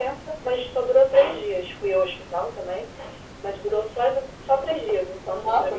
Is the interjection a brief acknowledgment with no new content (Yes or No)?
No